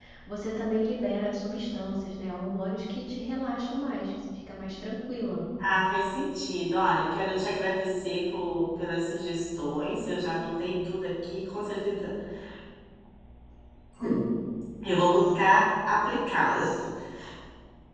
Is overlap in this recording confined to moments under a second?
Yes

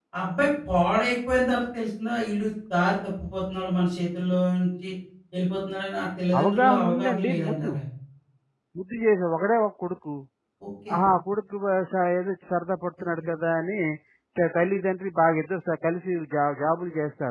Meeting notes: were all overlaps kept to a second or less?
No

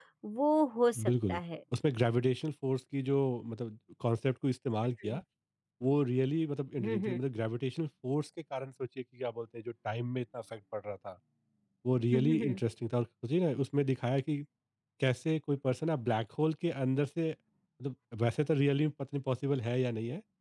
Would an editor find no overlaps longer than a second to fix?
Yes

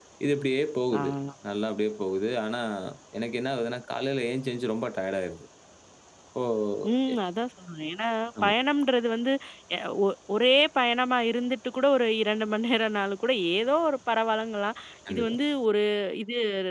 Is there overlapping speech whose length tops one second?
No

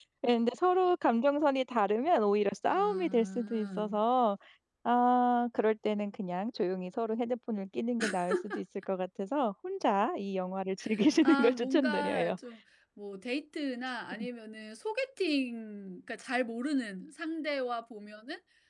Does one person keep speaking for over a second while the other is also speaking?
Yes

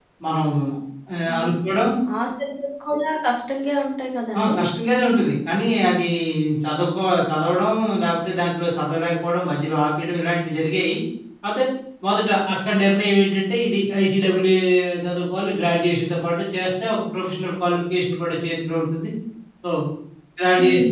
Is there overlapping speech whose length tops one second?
No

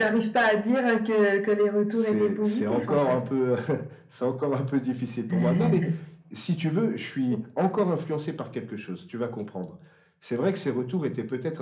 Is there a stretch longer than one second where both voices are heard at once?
Yes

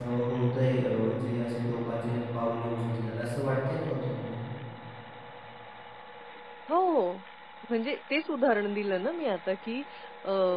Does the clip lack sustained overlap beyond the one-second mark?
Yes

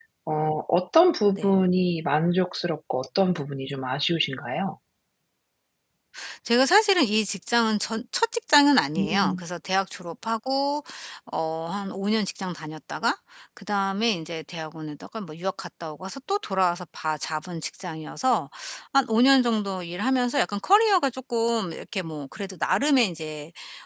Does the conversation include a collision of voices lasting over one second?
No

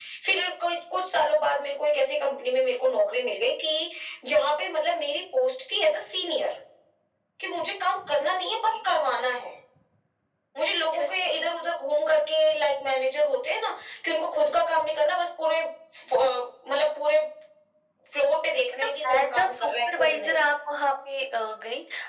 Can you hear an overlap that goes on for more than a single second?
Yes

